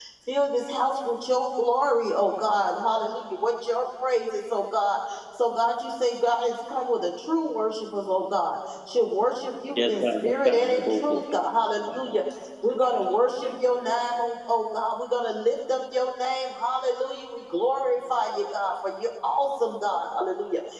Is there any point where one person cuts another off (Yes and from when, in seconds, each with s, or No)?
Yes, from 9.8 s